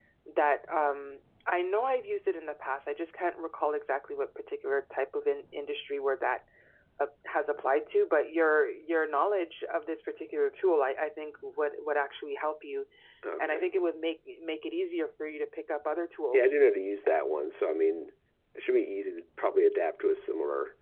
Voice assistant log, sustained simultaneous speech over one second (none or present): none